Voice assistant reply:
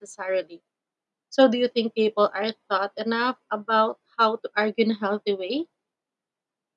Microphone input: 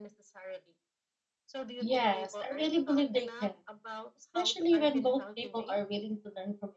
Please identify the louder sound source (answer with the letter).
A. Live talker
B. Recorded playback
A